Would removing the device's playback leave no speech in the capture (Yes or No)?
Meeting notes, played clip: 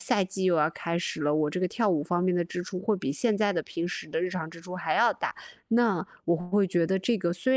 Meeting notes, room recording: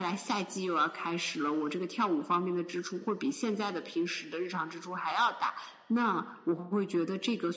Yes